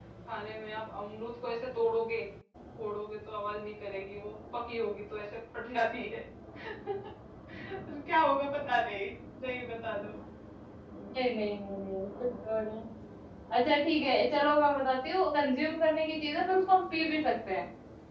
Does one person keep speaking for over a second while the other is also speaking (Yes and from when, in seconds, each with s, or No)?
No